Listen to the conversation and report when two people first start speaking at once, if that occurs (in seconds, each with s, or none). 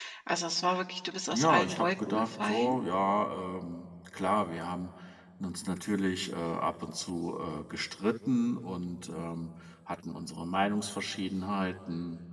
1.3 s